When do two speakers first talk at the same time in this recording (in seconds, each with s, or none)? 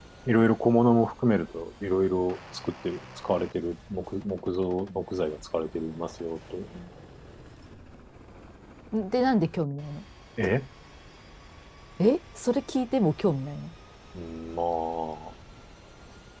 none